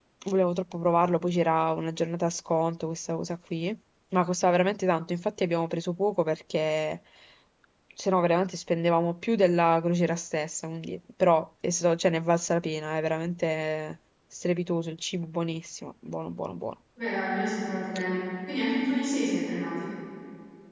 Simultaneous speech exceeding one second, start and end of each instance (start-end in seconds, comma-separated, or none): none